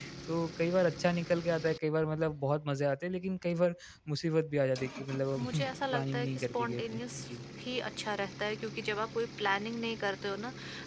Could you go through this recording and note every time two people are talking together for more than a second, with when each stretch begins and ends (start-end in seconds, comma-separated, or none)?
5.4-7.0